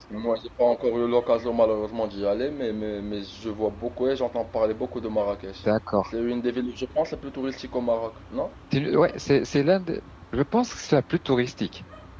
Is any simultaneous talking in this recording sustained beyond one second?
No

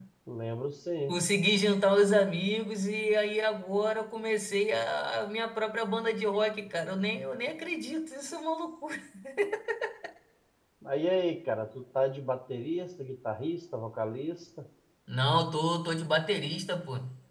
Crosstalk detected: No

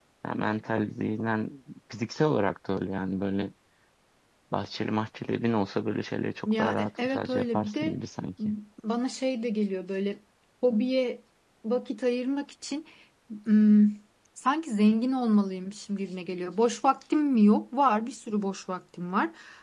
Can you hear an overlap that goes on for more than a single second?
Yes, from 6.5 s

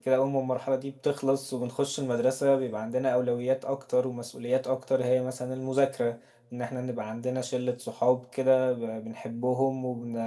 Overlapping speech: No

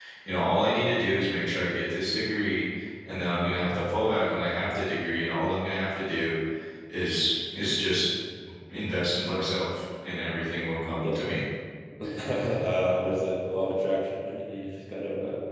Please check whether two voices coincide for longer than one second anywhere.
No

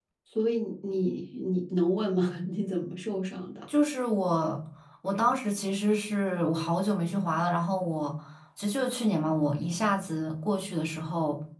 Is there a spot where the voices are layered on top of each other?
No

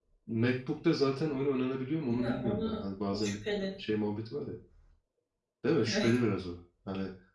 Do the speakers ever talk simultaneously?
Yes, from 2.1 s

